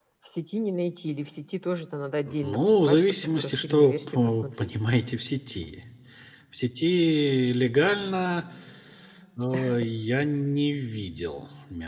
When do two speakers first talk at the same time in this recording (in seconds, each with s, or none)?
2.4 s